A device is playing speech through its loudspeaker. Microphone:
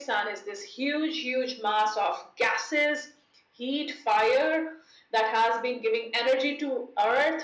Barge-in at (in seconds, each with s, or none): none